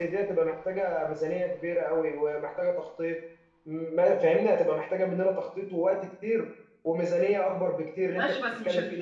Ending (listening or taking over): taking over